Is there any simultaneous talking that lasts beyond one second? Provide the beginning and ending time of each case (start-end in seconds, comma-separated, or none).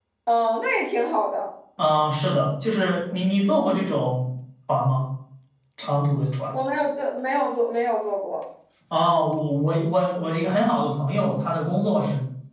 none